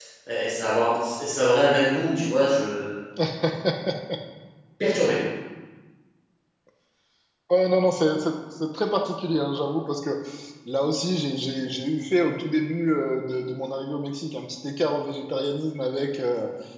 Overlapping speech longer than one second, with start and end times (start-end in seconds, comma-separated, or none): none